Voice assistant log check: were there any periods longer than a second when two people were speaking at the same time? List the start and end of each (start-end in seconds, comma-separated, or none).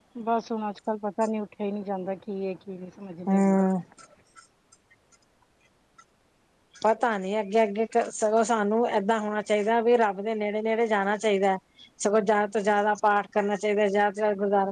none